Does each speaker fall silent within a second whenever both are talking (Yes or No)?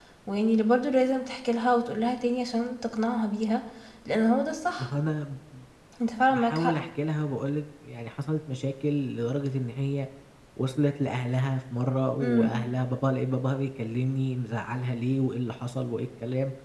Yes